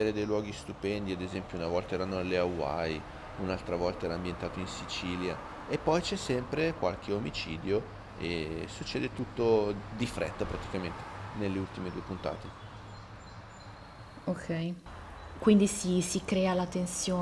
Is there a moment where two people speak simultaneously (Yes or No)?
No